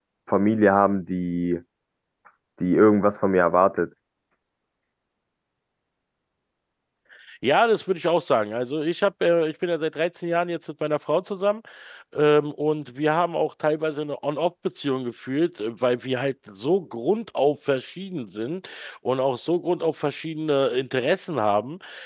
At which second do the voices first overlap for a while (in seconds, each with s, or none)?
none